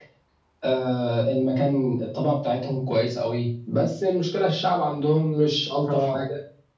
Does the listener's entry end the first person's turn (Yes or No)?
No